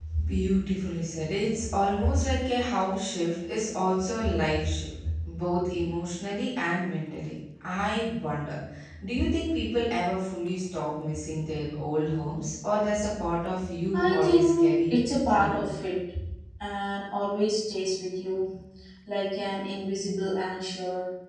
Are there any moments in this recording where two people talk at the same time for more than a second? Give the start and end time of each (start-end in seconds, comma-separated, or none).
13.9-15.6